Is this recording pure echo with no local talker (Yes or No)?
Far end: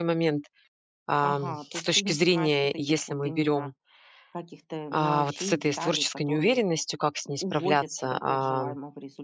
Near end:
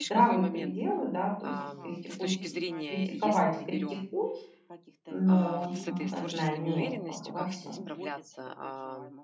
No